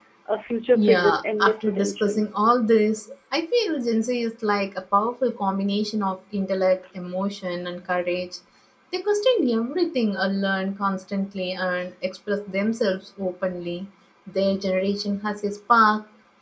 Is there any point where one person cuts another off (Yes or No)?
Yes